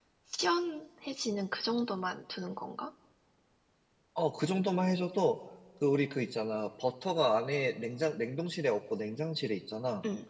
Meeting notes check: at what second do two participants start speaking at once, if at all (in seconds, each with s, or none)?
none